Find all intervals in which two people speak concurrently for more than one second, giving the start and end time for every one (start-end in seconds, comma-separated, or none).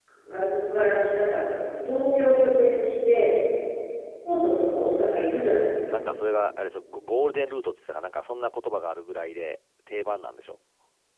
none